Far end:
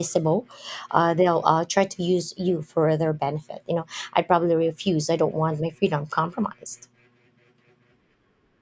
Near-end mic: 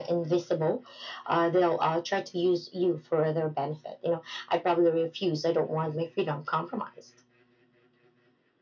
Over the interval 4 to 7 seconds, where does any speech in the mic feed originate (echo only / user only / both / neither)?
echo only